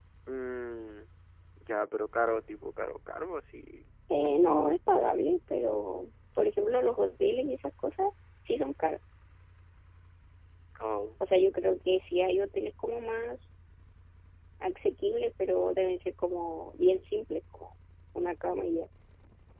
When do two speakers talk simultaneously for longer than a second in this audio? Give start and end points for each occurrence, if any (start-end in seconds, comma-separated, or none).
none